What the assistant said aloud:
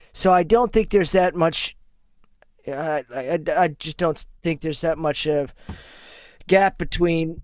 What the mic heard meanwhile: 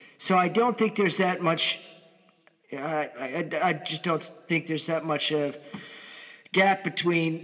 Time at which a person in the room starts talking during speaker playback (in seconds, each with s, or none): none